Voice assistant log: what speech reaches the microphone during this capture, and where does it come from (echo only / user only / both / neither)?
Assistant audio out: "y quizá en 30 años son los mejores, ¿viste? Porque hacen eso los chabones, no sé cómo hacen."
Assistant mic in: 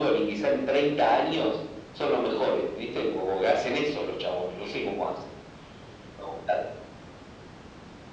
echo only